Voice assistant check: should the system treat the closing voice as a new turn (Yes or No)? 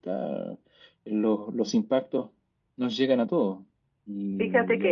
Yes